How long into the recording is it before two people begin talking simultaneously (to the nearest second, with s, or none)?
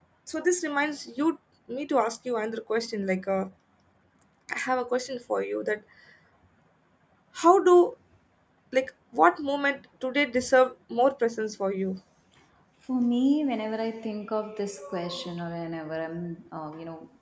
none